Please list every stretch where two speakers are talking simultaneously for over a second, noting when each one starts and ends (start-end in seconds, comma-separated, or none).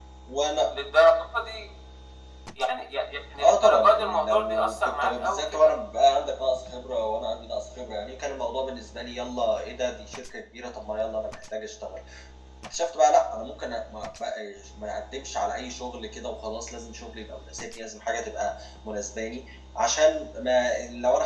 3.4-5.7